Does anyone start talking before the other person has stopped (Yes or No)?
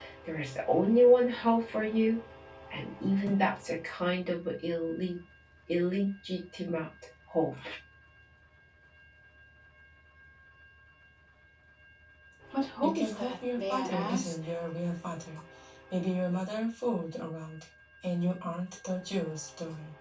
Yes